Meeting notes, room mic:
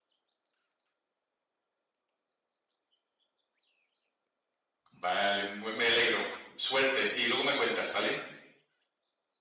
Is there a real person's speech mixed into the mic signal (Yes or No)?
Yes